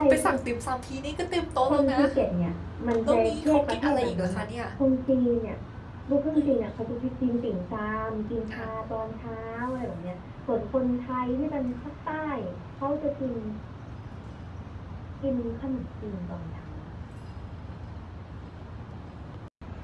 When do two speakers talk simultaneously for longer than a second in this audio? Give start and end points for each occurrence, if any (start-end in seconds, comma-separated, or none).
3.0-4.5